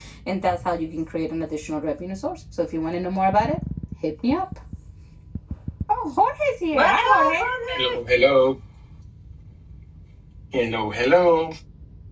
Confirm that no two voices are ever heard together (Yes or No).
No